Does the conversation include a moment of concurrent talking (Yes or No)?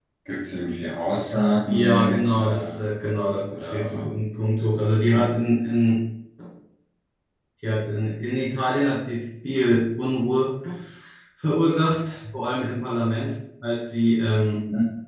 Yes